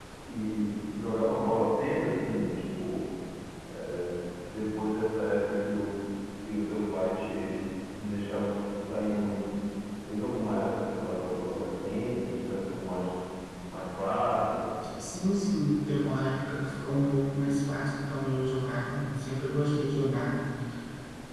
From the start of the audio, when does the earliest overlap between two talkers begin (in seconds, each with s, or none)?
none